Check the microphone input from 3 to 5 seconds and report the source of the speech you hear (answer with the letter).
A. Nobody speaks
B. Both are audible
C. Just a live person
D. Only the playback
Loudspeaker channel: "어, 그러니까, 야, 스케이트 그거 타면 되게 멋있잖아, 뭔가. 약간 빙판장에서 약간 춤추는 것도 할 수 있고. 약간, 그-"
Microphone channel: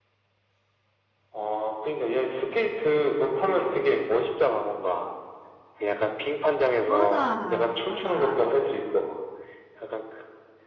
D